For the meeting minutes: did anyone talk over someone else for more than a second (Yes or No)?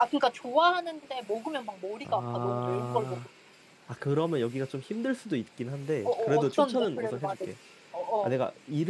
Yes